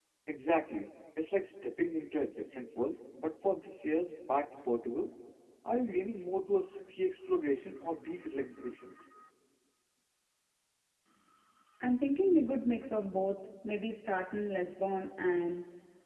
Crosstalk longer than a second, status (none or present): none